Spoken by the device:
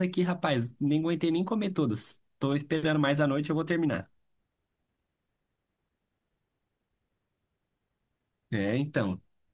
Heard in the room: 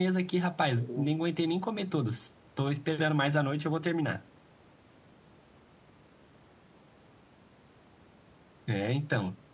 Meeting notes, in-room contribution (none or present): present